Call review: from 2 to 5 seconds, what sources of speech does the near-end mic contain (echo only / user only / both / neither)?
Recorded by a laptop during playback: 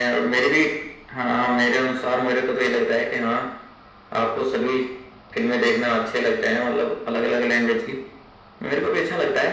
echo only